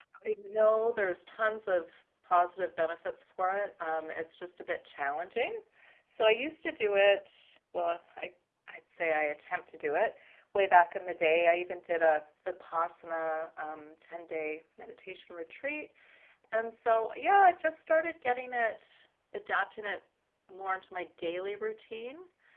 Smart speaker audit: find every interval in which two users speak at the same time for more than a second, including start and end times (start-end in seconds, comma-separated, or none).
none